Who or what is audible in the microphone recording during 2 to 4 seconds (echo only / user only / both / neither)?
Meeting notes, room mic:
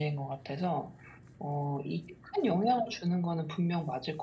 echo only